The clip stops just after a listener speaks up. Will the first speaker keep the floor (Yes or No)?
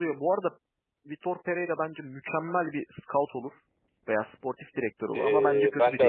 No